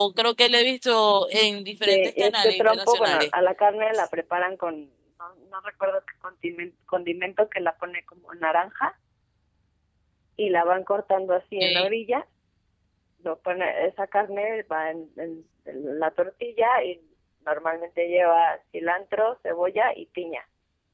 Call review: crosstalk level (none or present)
present